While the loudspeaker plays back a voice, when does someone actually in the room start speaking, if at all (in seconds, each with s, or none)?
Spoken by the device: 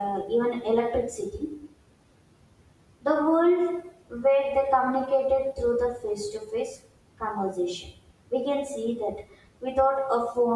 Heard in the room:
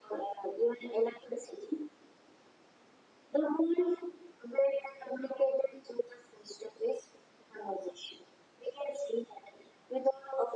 none